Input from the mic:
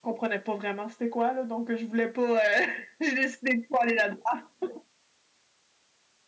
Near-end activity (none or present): none